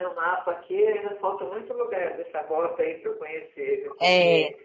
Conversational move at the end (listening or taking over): listening